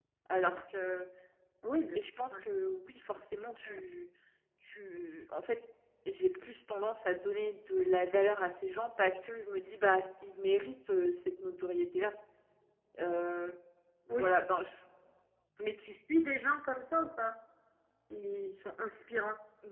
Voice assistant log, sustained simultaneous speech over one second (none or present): none